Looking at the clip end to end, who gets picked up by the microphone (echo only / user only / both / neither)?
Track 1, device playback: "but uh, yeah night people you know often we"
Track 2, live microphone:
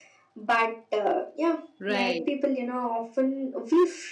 both